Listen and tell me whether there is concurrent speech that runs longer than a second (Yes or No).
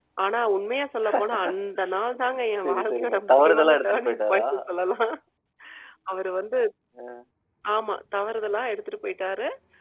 Yes